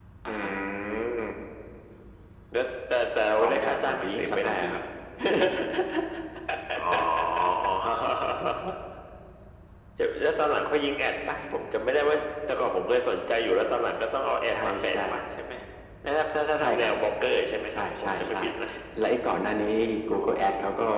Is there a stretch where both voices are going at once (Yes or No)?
Yes